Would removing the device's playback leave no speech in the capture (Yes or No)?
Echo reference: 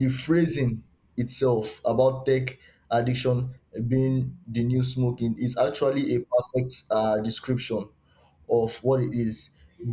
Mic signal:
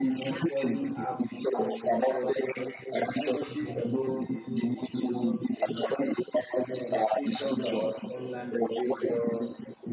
No